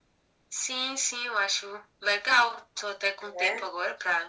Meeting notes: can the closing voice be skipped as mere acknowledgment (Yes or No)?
Yes